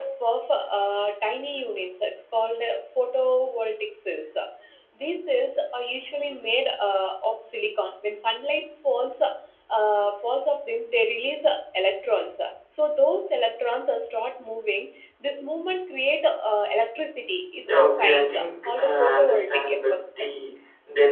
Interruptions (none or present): present